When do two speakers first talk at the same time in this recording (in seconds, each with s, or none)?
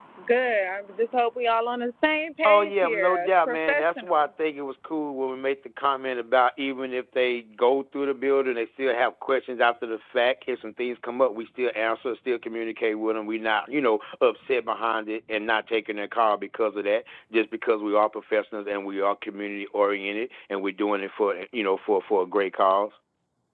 2.4 s